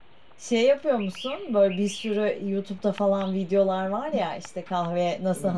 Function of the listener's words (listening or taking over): listening